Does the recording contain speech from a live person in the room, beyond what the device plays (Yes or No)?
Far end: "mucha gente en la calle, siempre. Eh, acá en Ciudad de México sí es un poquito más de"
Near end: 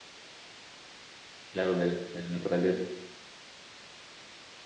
Yes